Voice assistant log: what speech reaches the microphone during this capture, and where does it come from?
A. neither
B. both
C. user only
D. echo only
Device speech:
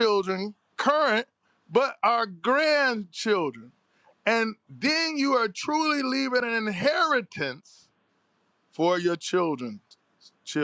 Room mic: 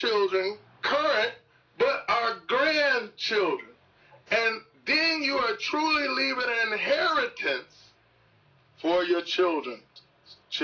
D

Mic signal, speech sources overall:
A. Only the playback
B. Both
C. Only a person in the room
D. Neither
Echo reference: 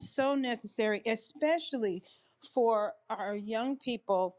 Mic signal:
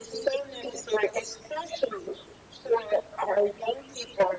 A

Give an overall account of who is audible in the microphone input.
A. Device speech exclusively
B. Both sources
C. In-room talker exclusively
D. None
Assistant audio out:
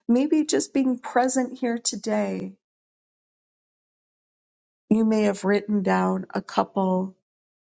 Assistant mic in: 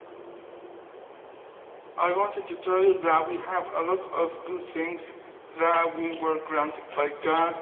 C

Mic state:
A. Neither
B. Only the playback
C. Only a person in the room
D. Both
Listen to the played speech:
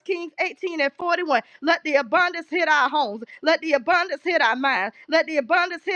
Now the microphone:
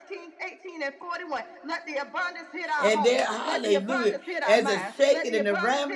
D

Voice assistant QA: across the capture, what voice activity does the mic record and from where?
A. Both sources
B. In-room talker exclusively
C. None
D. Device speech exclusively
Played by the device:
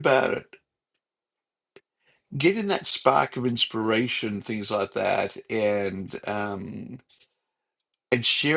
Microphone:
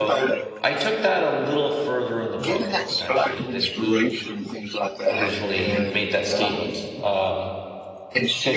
A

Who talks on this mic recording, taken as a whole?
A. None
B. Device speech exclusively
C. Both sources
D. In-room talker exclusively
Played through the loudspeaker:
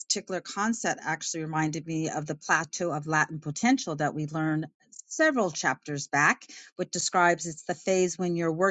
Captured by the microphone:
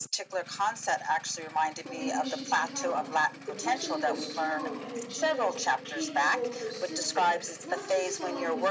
C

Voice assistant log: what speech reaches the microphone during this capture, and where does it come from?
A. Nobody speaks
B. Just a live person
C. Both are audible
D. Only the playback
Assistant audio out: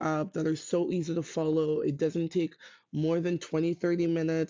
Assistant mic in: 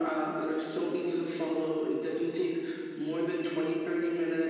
D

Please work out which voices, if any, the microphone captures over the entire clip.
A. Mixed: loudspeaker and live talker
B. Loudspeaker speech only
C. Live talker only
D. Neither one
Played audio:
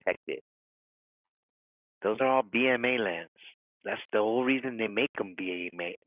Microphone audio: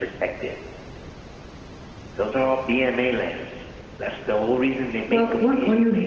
A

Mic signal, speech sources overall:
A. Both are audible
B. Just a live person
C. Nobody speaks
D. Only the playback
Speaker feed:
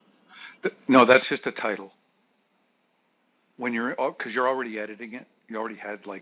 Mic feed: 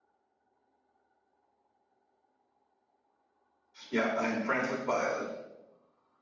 B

